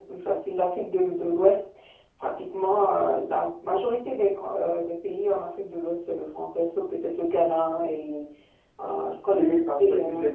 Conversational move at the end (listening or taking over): taking over